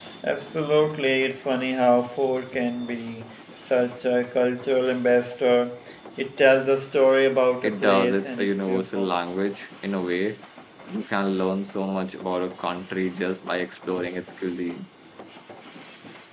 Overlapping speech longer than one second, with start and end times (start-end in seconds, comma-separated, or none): 7.6-9.1